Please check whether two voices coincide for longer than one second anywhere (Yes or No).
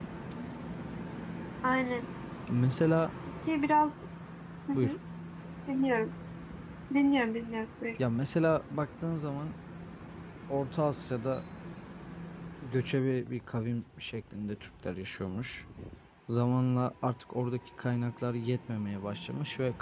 No